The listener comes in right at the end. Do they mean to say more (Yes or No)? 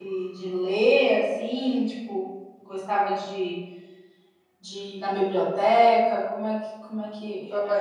Yes